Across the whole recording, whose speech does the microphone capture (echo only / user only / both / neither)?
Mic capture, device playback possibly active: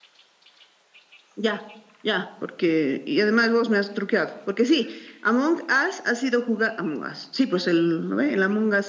echo only